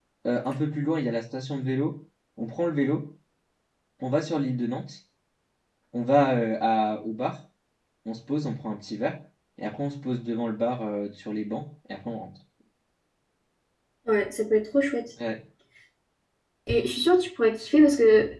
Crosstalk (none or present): none